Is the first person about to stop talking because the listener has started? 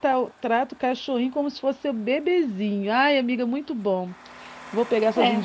No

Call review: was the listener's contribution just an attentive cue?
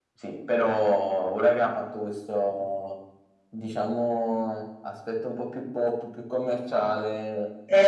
No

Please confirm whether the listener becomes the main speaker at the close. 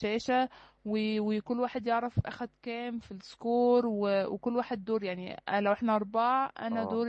No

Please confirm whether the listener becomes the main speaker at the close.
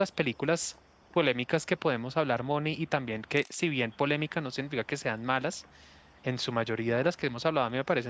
No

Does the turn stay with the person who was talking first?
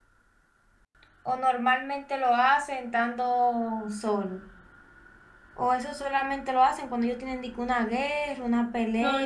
No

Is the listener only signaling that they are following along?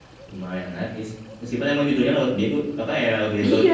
No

